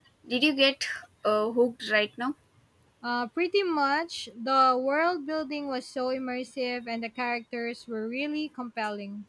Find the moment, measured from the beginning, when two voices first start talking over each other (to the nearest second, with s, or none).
none